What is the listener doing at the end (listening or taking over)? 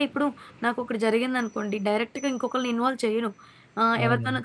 listening